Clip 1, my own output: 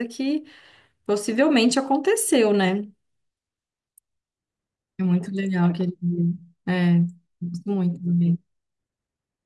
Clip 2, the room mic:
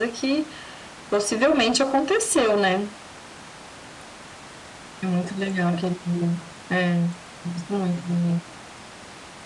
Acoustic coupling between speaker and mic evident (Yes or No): Yes